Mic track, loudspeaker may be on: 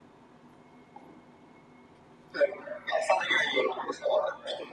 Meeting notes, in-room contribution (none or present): none